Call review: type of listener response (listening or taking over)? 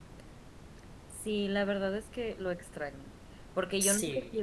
listening